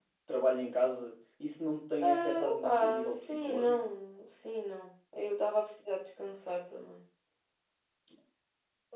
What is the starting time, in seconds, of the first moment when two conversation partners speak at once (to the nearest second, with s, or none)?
2 s